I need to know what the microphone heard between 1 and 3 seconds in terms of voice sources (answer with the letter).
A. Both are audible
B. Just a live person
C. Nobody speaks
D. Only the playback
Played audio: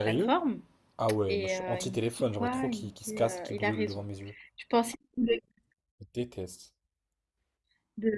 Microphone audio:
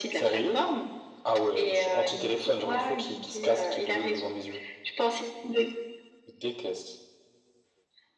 D